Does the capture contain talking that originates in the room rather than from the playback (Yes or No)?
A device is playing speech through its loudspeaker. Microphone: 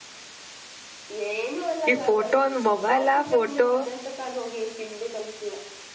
Yes